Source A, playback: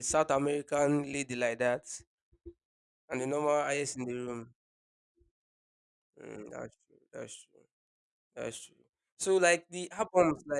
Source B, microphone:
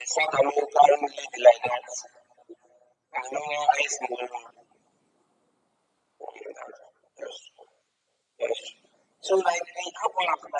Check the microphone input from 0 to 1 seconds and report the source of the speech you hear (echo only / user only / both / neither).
echo only